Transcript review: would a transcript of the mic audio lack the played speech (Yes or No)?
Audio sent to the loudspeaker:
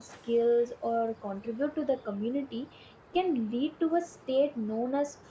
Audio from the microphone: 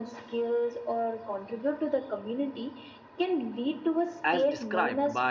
No